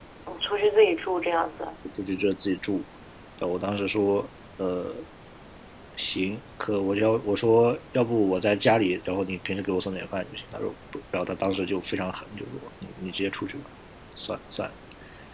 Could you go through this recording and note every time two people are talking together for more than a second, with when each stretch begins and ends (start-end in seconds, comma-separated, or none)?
none